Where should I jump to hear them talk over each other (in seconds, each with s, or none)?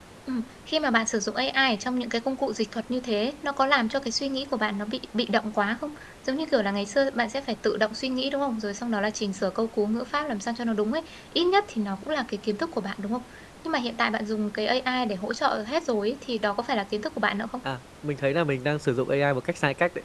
none